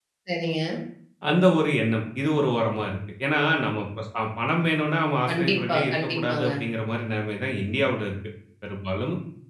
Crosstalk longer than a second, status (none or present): present